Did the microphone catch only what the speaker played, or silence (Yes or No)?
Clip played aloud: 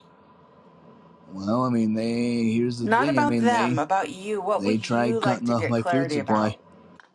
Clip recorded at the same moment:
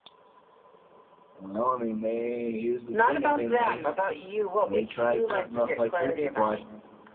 Yes